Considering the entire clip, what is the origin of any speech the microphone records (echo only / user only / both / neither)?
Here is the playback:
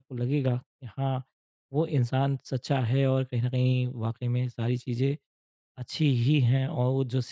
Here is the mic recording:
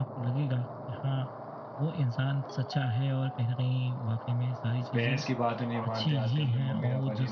both